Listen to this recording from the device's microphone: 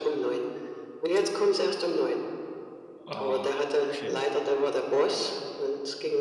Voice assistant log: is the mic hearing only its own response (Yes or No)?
No